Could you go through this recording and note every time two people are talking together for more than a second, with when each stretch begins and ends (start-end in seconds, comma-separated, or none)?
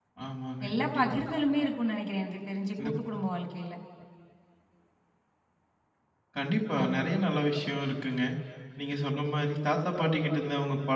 none